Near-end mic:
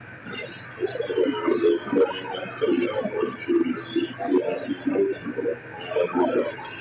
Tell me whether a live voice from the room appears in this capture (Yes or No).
No